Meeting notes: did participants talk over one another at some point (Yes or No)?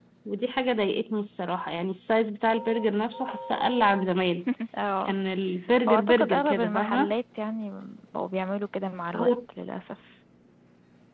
Yes